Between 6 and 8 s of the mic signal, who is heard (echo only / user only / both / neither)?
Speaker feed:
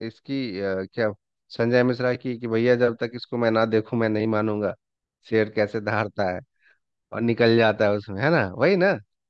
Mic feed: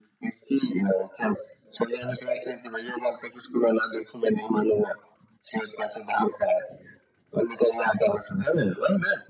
echo only